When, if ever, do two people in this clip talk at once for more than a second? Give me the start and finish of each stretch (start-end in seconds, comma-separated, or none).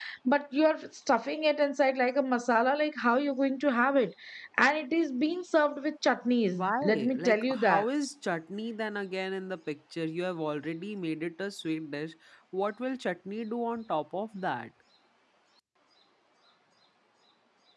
6.5-7.8